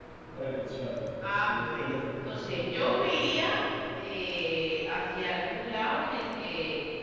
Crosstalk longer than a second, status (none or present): present